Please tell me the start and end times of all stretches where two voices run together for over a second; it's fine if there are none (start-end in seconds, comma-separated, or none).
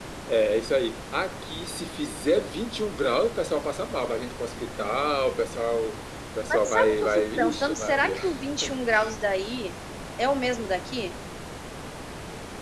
6.5-8.2